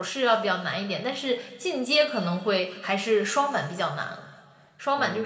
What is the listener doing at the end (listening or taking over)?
listening